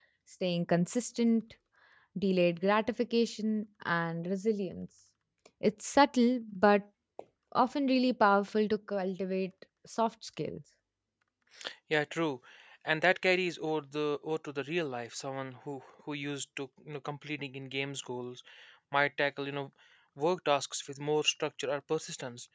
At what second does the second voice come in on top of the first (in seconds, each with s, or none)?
none